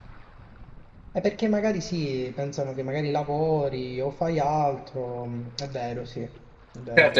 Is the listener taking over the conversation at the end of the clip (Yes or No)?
Yes